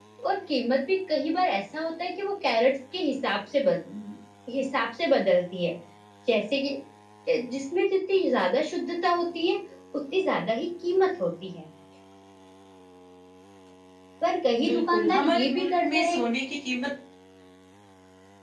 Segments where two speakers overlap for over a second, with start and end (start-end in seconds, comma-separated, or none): 14.7-16.2